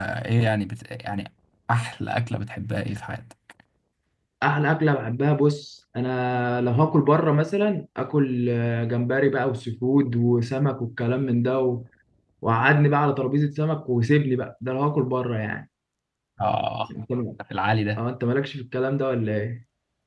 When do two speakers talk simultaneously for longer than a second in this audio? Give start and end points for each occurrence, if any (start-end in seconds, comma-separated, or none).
none